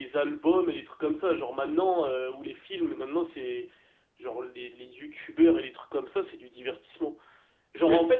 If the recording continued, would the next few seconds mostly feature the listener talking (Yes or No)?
No